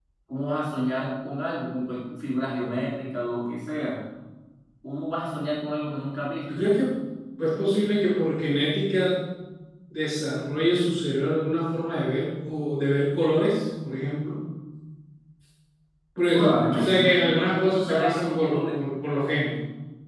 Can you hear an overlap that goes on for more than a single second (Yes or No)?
Yes